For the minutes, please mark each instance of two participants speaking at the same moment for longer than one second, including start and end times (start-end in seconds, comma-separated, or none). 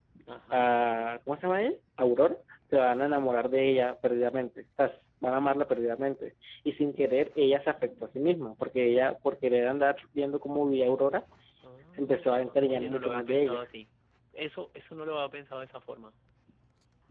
12.0-13.6